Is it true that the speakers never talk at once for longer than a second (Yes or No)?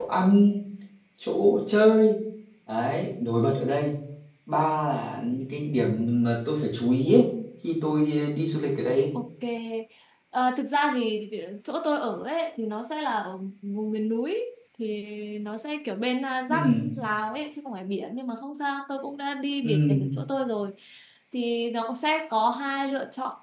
Yes